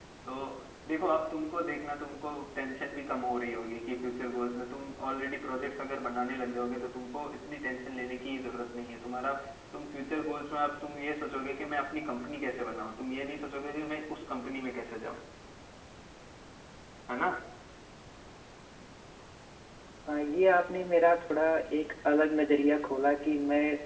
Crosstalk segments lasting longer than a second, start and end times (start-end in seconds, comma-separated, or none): none